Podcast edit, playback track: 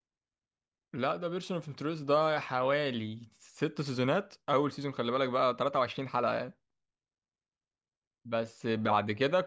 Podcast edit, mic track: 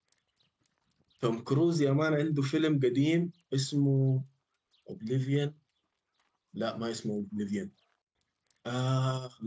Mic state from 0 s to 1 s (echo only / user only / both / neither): neither